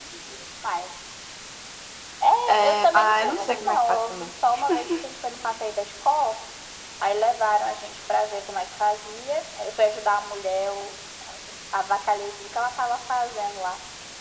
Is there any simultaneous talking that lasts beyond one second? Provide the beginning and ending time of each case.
2.5-4.3

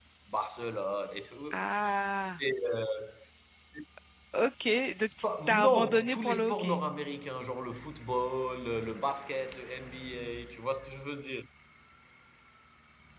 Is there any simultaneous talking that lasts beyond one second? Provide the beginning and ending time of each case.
5.2-6.8

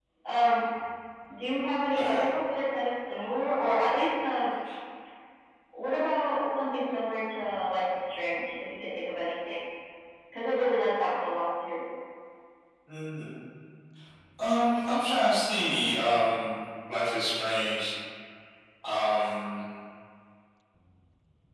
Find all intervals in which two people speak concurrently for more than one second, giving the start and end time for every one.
none

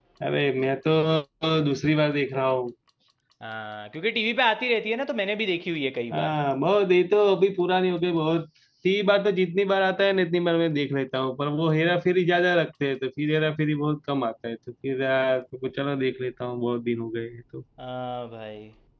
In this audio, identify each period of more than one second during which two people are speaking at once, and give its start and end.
none

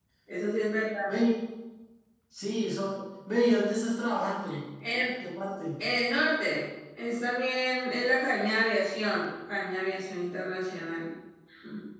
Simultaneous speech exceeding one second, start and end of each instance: none

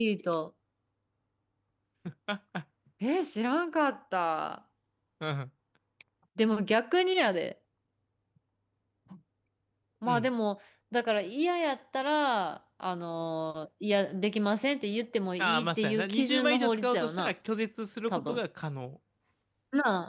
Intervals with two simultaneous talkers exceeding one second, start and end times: 15.4-17.3

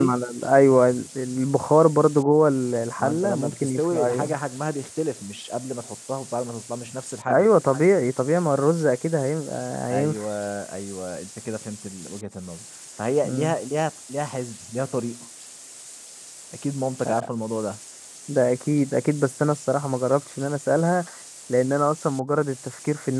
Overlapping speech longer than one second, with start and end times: 3.0-4.4

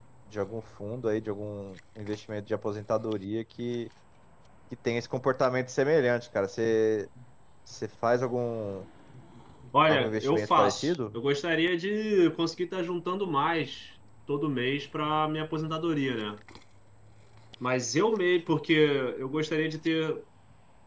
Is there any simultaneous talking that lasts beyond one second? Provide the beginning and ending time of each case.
9.9-11.2

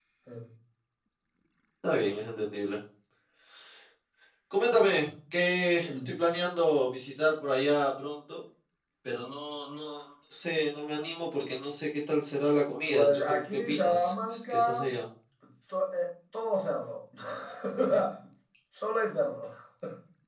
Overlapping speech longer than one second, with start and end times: 12.8-14.9

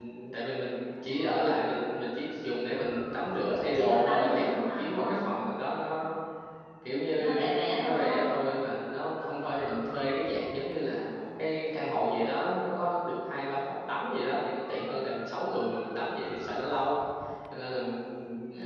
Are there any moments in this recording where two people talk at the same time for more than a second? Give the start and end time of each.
3.7-5.2

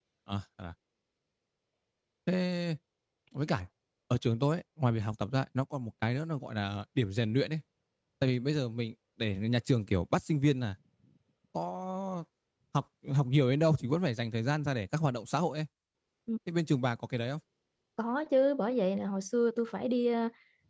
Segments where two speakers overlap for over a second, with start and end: none

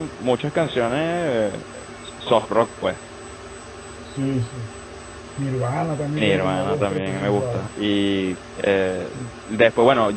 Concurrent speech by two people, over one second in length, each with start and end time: 6.2-7.7

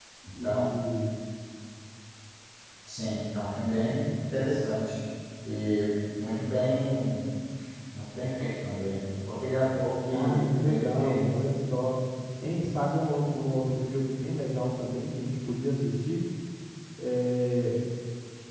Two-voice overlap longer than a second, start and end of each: 10.1-11.4

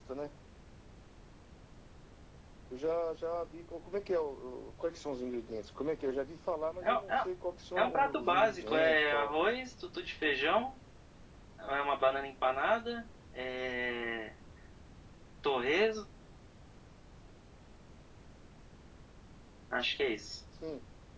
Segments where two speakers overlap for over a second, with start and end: 7.8-9.4

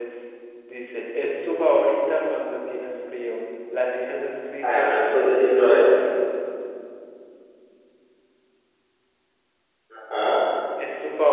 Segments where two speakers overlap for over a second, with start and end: 4.6-5.9

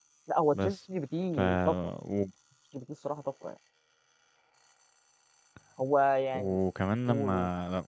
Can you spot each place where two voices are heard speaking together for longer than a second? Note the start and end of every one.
none

